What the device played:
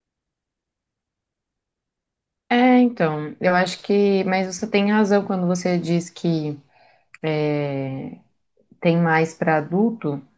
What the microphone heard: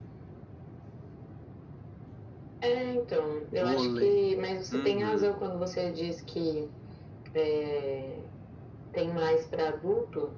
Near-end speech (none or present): present